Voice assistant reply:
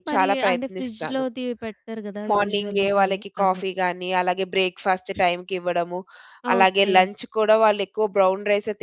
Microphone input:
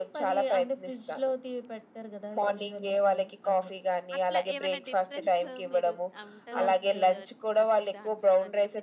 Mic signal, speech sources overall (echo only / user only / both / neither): both